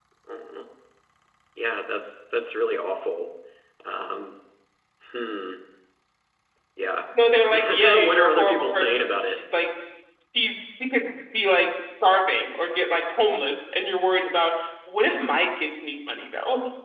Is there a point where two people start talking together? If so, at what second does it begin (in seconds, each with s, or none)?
7.5 s